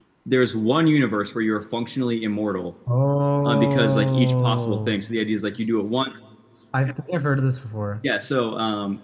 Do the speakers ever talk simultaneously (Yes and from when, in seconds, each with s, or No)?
Yes, from 3.4 s